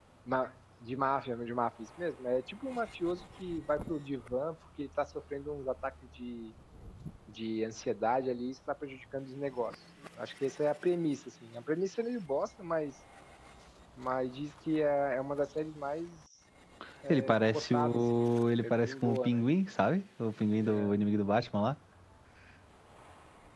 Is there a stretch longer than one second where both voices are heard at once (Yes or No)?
Yes